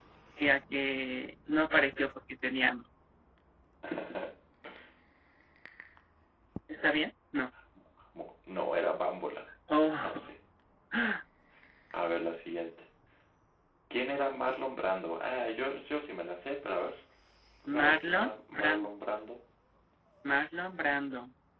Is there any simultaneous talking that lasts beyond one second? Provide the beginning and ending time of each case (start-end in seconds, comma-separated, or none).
17.7-18.9